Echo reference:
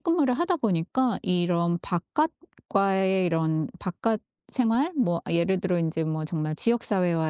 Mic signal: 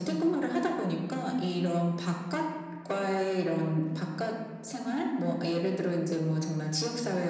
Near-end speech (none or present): none